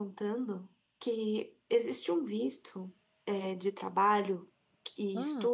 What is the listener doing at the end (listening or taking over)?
listening